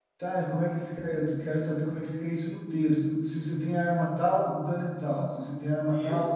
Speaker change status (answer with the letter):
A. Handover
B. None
A